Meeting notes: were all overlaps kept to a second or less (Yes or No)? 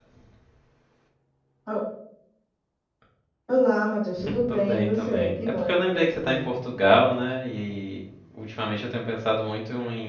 No